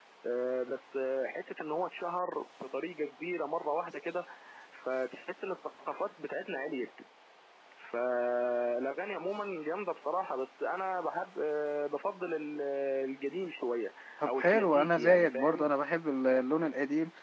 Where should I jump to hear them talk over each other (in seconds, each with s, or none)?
14.2 s